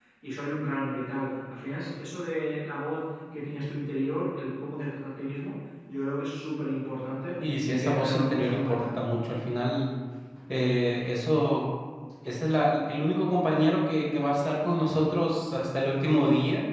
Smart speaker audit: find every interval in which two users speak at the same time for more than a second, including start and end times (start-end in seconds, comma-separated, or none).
7.4-8.8